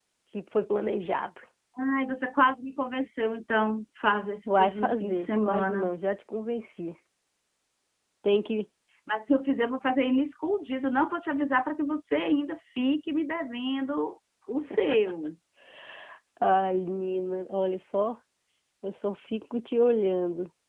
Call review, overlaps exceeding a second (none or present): present